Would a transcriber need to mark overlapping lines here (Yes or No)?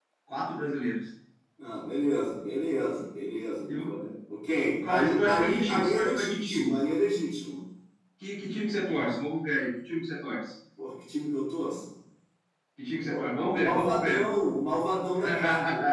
Yes